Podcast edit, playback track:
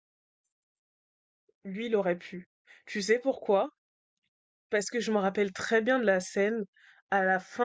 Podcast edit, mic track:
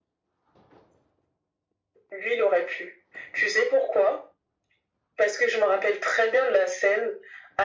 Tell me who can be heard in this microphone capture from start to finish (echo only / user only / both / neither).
echo only